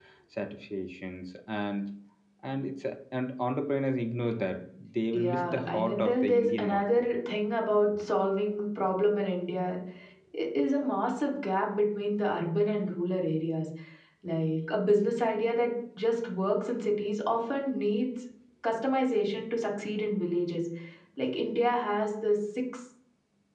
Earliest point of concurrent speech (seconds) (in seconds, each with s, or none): 5.1 s